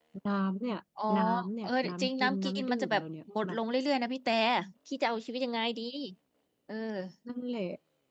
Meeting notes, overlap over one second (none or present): present